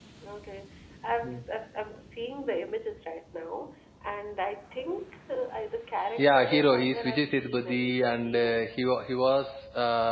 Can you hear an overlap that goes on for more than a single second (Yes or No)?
Yes